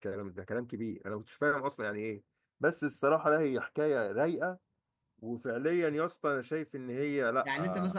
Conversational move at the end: taking over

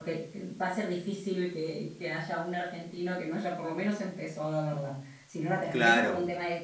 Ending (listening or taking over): listening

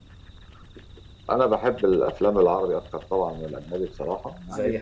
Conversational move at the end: listening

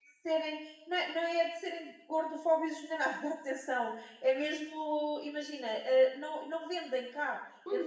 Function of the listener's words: listening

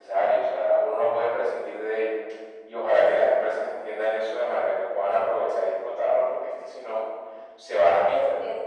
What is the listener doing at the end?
taking over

